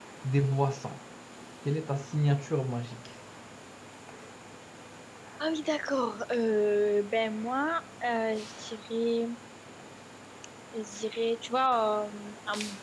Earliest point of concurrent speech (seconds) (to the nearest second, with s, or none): none